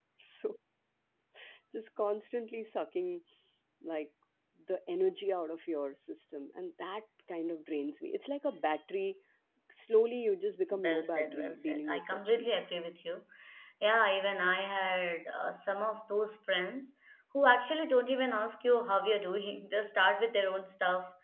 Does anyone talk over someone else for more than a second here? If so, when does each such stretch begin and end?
10.8-12.6

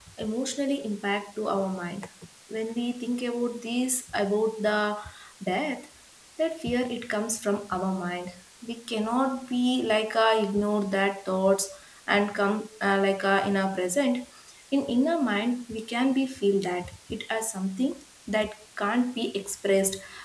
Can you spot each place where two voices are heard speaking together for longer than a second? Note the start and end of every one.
none

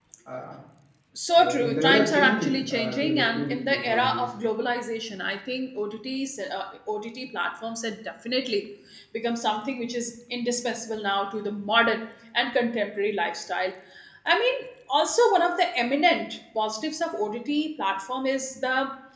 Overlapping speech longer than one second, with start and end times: 1.4-4.2

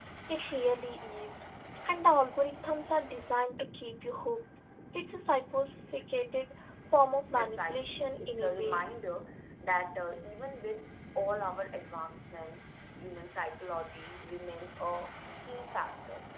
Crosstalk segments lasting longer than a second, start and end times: 7.3-8.8

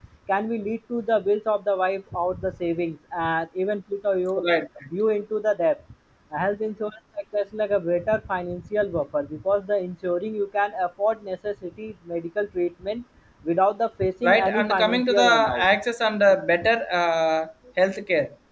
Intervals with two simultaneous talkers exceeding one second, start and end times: 14.2-15.7

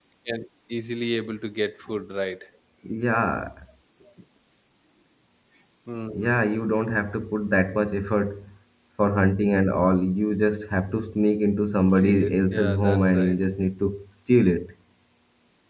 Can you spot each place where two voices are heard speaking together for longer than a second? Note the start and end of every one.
11.9-13.4

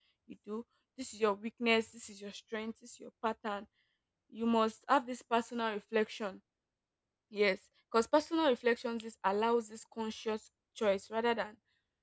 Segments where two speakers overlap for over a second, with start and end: none

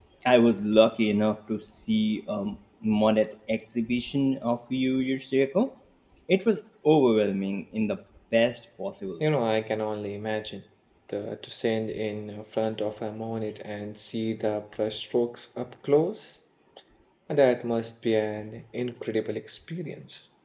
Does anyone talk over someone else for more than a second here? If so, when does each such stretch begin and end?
none

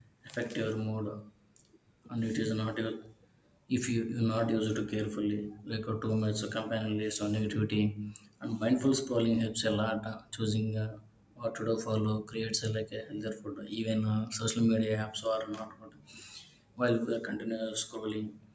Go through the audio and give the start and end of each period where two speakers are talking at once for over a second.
none

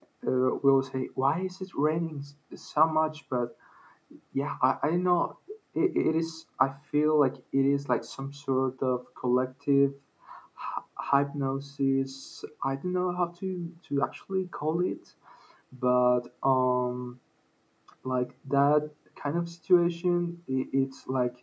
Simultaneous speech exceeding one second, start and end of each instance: none

